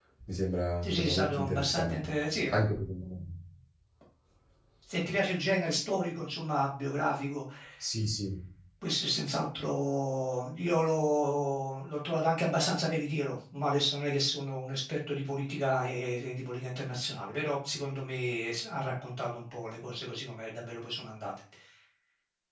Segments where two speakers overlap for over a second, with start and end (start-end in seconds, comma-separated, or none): 0.8-2.0